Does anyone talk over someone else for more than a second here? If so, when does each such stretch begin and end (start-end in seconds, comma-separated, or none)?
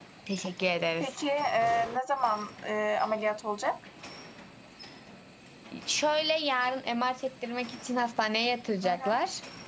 none